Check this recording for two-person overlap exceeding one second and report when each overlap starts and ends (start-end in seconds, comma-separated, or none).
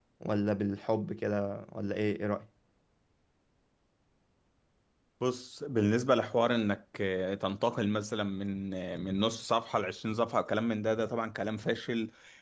none